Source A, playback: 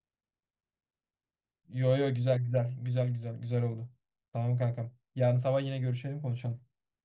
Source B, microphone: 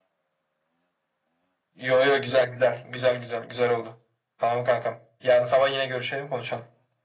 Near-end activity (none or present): none